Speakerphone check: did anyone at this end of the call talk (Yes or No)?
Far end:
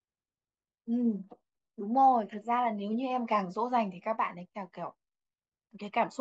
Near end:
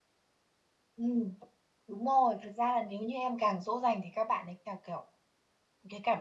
No